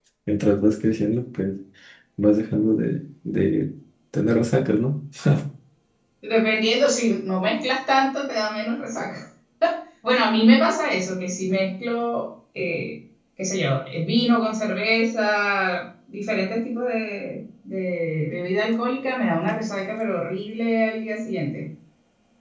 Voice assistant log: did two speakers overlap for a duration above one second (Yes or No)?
No